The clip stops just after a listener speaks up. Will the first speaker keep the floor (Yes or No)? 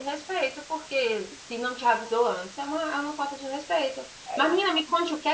Yes